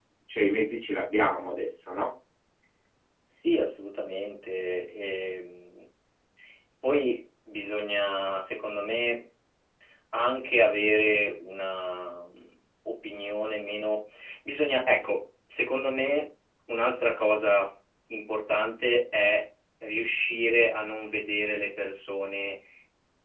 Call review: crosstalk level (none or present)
none